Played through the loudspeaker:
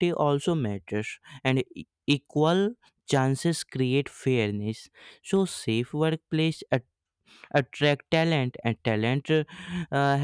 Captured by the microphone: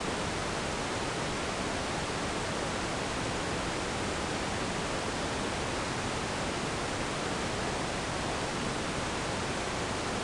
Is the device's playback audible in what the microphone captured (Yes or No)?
No